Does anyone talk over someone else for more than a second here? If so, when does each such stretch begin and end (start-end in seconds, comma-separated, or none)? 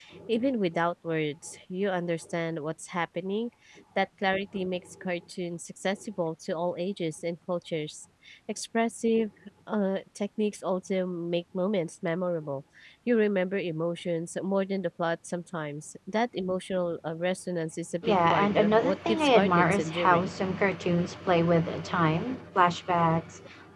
18.0-20.3